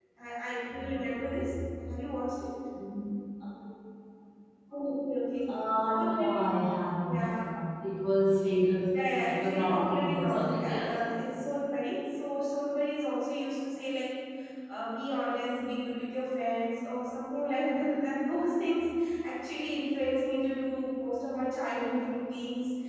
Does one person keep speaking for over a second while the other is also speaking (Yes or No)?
Yes